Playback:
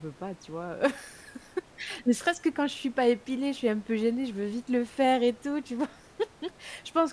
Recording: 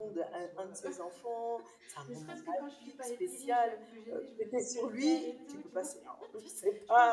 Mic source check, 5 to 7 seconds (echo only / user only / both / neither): both